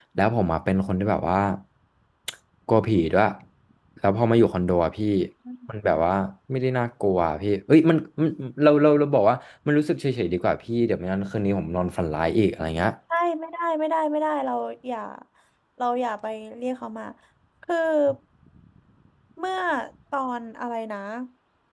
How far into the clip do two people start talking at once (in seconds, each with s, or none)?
none